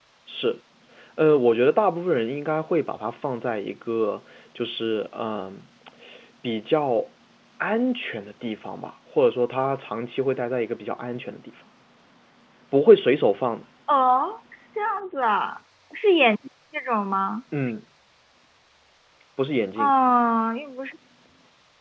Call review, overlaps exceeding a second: none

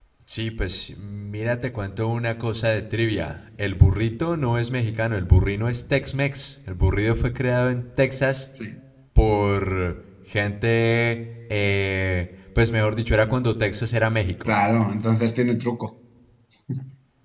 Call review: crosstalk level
none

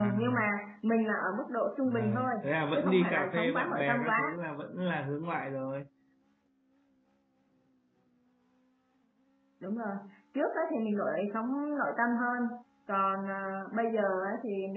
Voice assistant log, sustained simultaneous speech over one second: present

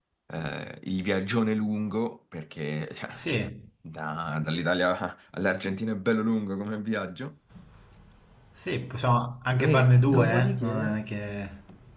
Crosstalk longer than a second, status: present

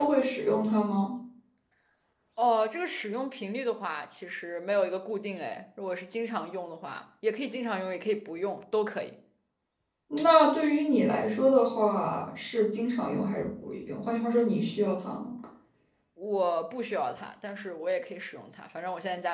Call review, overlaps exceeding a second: none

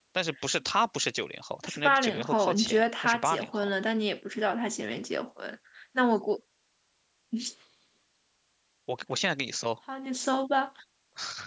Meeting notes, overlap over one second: present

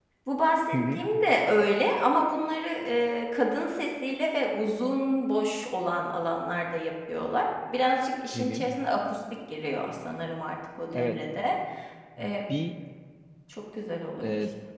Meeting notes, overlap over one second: none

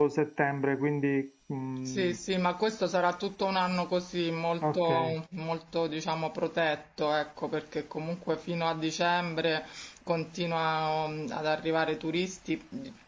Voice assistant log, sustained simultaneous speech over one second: none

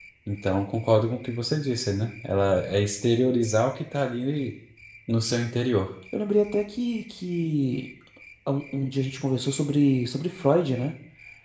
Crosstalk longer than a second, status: none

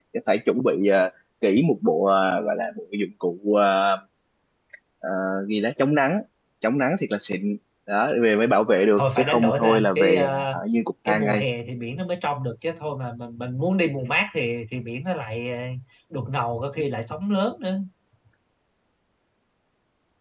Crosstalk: present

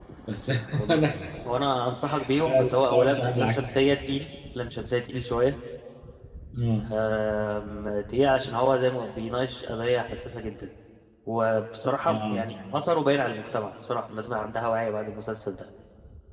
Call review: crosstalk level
present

